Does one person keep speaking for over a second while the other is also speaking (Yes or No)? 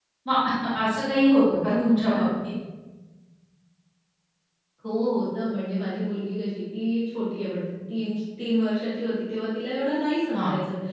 No